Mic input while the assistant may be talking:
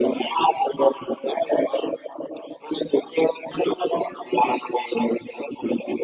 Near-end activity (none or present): none